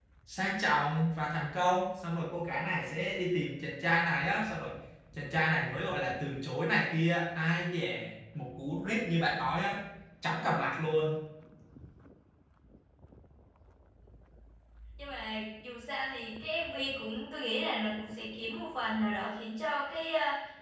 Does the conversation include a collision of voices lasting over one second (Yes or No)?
No